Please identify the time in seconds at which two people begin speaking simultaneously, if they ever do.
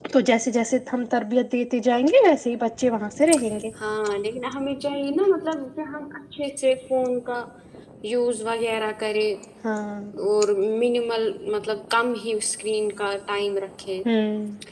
none

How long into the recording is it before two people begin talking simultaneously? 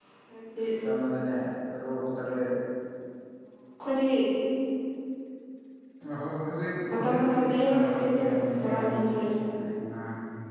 6.9 s

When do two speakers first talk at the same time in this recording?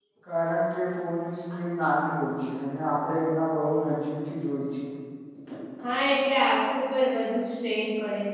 none

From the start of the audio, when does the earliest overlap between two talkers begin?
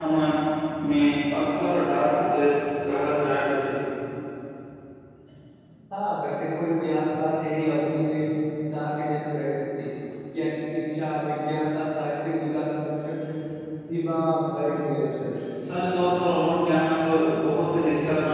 none

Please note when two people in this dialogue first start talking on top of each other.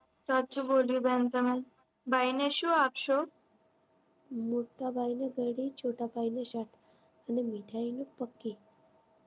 none

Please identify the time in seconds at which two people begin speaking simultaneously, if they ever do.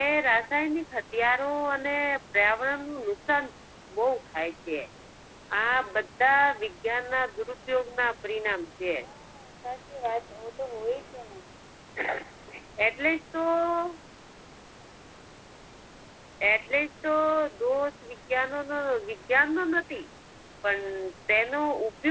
none

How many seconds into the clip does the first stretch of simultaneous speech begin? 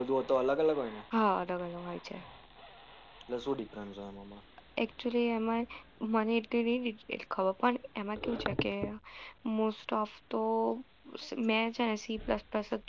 none

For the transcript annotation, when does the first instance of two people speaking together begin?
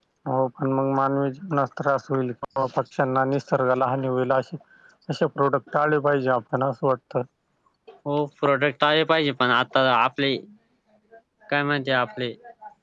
none

